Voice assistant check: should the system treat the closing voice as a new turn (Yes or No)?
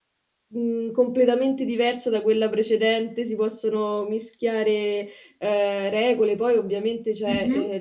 No